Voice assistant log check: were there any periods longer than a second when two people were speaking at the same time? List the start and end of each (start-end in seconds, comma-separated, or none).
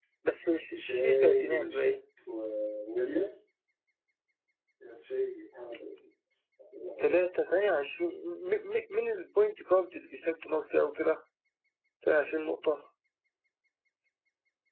0.8-2.0